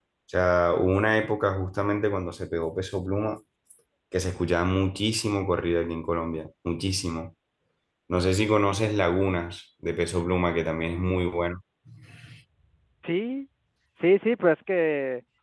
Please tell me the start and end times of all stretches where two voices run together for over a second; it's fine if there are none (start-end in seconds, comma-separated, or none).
none